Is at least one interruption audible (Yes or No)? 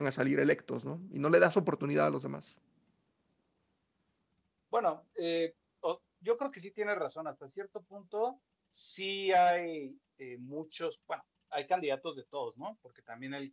No